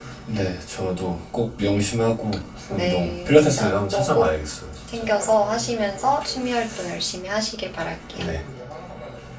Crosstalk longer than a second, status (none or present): present